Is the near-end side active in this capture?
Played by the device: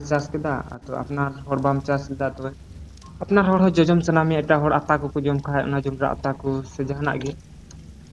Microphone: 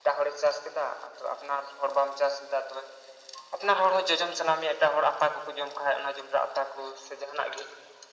No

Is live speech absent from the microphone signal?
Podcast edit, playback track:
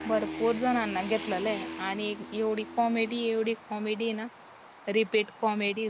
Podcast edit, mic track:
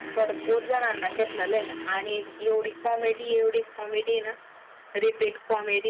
Yes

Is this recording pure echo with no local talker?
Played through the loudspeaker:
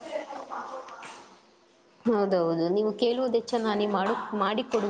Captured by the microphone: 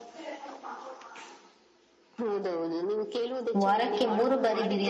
No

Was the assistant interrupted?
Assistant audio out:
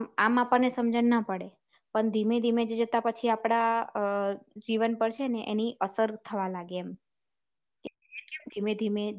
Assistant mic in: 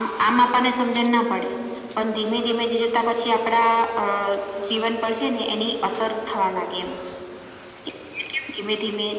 No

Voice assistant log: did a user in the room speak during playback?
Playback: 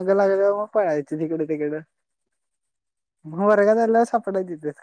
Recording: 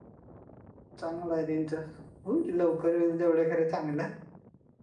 Yes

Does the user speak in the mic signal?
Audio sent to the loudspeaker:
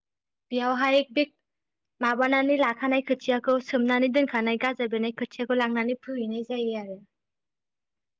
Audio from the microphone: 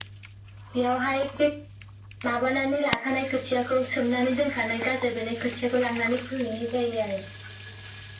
No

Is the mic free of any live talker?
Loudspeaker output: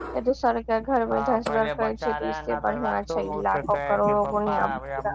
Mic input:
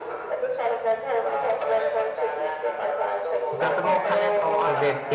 No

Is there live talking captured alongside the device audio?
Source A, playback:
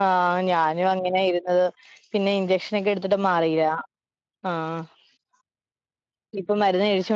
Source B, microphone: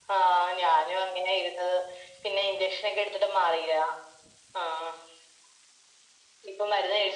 No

